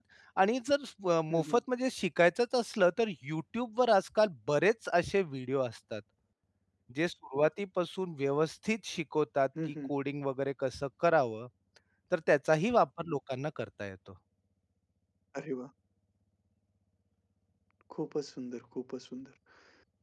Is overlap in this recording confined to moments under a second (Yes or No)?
Yes